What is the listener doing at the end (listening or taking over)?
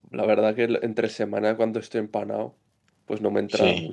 listening